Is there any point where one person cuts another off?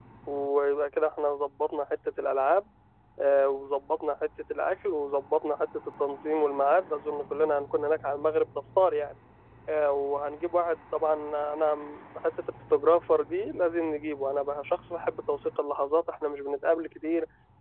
No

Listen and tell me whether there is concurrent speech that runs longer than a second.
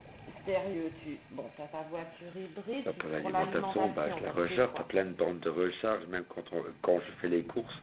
Yes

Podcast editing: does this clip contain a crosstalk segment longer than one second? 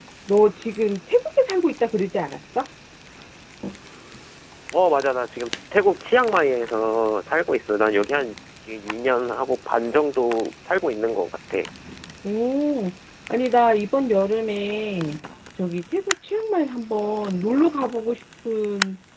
No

